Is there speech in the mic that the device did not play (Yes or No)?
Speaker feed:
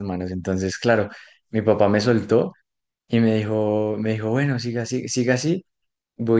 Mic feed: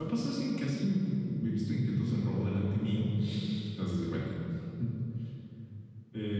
Yes